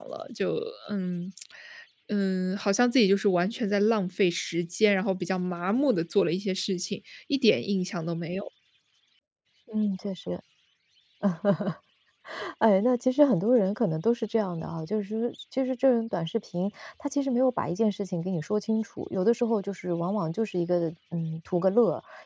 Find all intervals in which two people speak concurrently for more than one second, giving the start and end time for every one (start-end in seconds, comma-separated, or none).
none